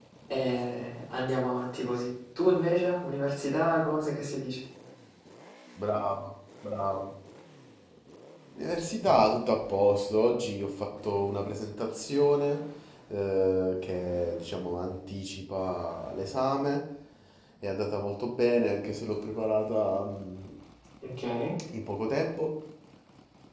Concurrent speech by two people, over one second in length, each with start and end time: none

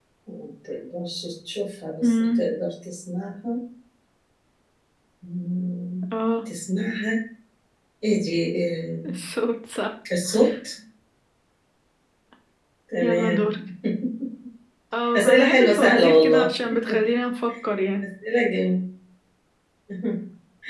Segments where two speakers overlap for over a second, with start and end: 15.2-16.5

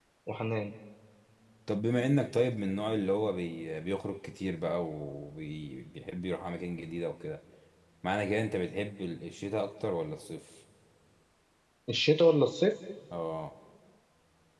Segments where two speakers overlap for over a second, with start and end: none

